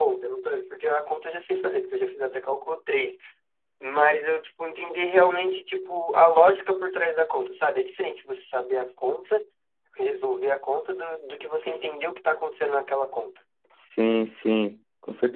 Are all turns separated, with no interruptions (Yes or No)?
Yes